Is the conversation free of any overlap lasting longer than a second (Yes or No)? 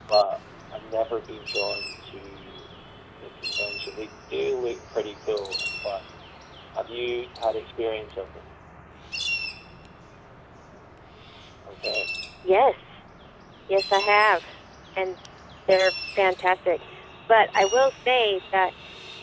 Yes